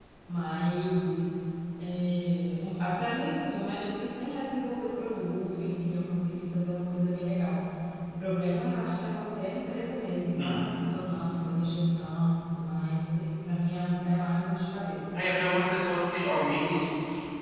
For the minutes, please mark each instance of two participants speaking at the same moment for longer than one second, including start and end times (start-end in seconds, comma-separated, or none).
none